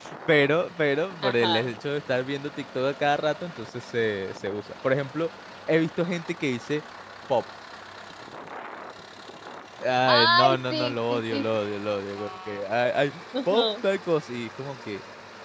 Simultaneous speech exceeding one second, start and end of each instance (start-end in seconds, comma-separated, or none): 10.1-11.6